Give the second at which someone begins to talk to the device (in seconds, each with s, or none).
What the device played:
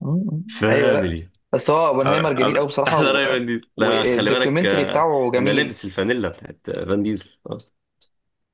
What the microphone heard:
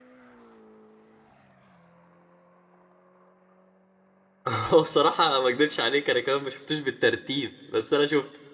4.5 s